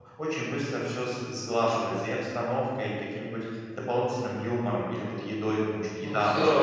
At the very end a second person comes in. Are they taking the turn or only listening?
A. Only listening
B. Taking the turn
B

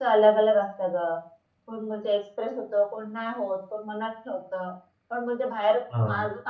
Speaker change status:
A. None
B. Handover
A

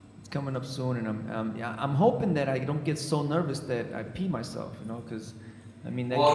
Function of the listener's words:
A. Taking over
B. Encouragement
A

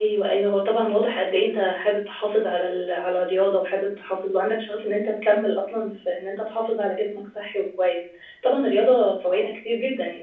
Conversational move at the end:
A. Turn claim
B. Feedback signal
B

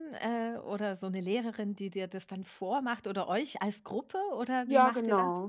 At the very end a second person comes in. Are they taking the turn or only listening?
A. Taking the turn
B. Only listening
A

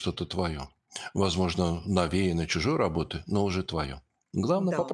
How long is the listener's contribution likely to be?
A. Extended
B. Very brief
A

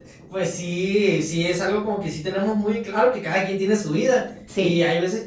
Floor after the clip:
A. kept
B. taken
A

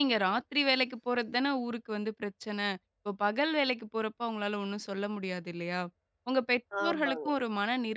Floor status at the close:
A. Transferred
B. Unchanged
B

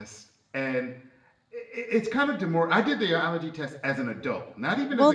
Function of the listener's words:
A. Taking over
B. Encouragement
A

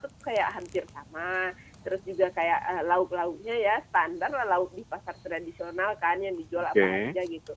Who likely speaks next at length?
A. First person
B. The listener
A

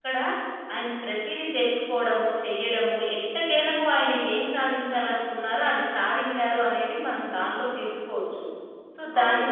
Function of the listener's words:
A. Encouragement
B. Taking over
B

